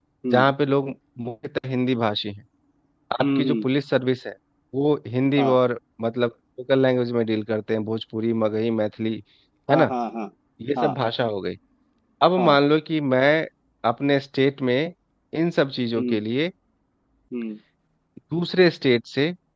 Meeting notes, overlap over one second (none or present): none